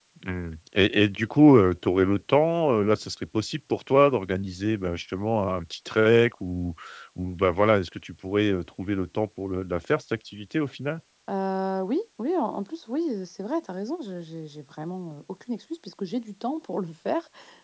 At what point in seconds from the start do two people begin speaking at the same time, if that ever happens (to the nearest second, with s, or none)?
none